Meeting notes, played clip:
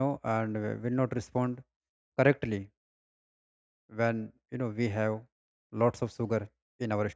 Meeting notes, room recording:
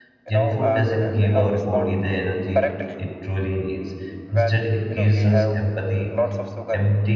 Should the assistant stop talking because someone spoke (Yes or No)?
Yes